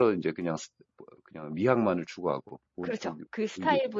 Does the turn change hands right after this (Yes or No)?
Yes